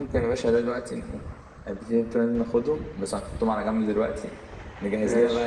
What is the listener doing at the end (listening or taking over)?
listening